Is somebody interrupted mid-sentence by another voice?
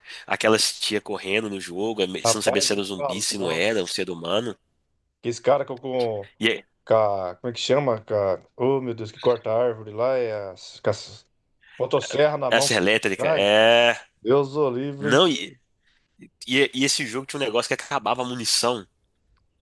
Yes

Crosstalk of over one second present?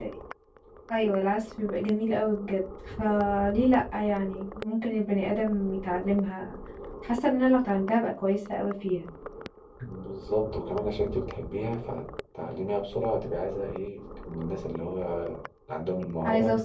No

